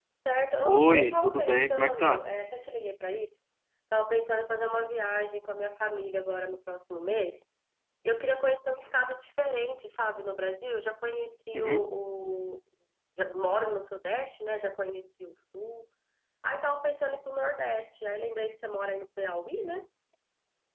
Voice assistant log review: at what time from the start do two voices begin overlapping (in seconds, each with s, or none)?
0.7 s